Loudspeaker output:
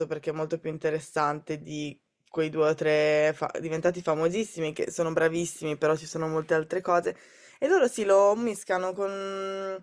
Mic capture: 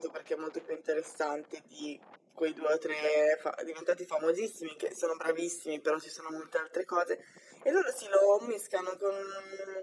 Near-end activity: none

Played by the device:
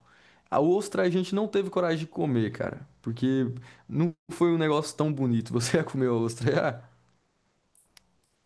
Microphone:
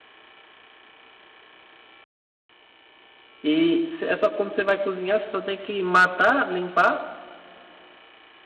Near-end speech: present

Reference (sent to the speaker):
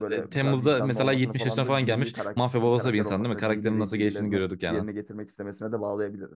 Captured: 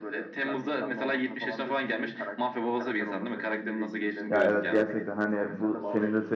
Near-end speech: present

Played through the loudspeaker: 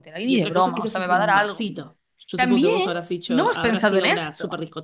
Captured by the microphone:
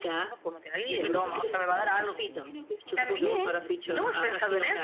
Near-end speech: present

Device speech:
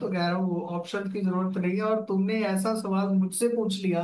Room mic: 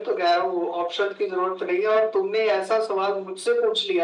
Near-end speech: none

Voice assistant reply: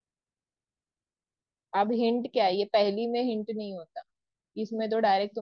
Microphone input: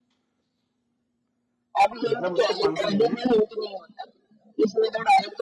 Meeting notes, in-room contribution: present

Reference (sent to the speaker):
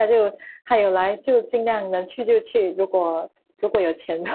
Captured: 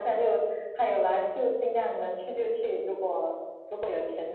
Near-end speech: none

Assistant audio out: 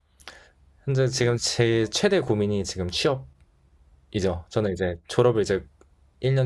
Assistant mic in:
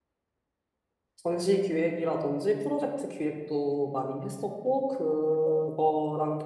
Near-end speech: present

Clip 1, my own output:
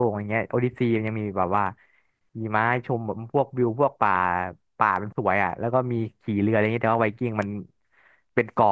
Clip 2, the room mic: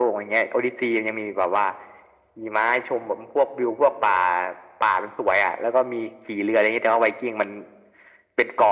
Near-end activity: none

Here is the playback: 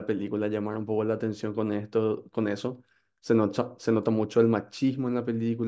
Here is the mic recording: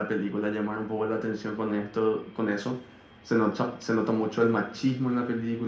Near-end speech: none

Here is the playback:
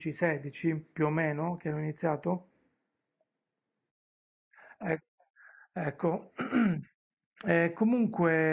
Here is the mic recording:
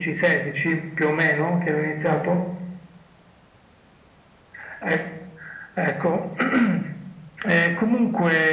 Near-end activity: none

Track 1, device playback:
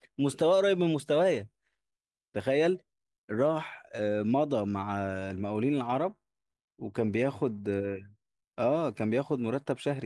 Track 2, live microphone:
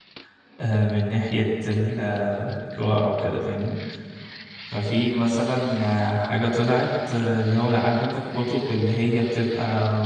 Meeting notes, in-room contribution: present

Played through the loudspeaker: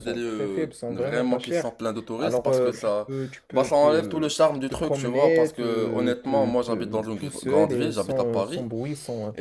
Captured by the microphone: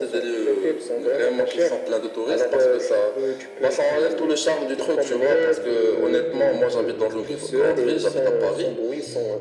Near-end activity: none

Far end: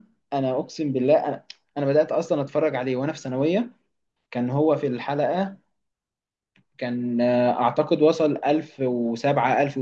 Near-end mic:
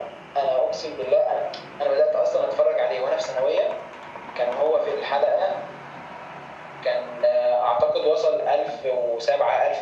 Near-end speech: none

